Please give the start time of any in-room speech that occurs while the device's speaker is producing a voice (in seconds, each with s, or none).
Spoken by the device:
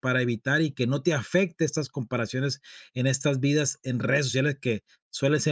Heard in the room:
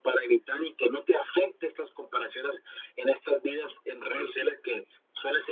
none